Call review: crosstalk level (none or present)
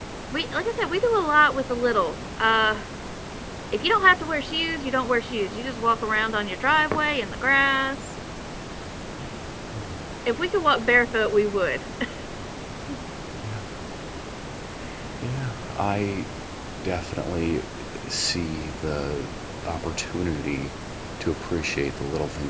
none